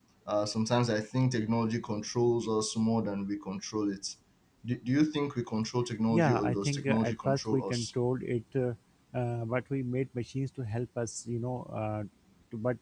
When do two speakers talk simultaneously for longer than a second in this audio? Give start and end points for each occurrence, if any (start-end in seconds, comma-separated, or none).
6.1-7.9